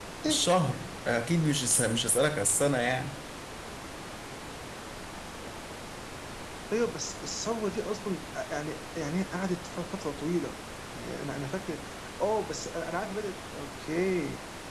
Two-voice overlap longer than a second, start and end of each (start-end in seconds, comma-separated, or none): none